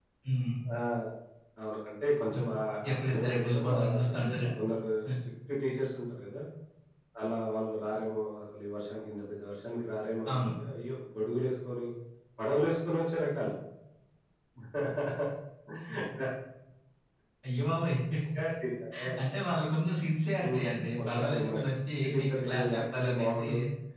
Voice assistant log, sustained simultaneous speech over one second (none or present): present